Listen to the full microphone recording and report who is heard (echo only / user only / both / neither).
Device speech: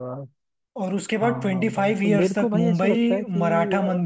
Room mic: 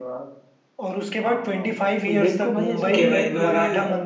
both